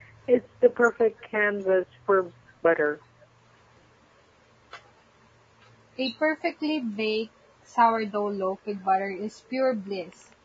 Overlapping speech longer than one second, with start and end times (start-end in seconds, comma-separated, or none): none